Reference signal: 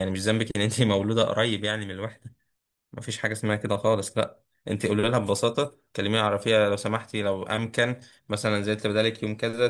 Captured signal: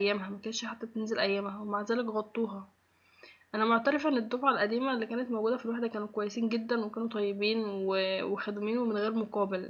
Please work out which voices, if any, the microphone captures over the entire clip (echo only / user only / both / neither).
user only